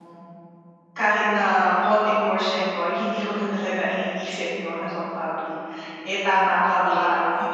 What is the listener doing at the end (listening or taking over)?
listening